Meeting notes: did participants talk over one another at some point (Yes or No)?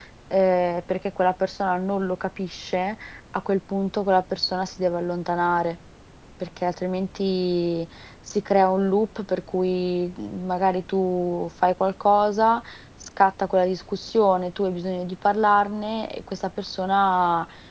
No